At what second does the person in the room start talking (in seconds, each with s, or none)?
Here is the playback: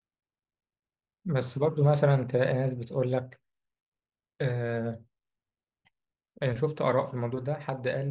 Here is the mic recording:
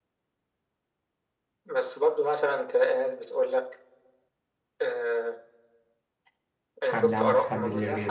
6.8 s